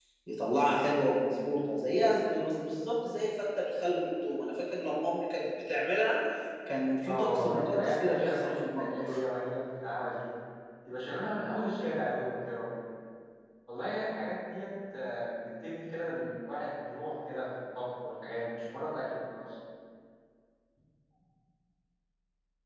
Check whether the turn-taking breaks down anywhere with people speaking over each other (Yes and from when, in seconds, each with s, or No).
Yes, from 7.0 s